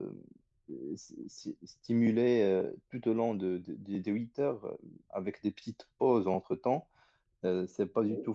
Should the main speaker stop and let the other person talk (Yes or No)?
No